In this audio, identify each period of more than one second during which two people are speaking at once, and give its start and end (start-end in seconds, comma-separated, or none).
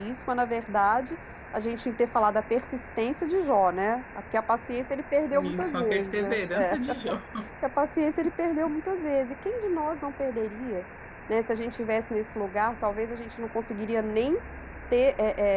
5.3-6.8